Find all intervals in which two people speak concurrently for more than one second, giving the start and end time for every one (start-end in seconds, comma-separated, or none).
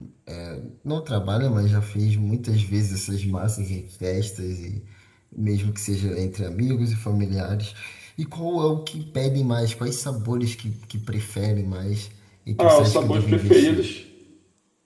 12.6-13.9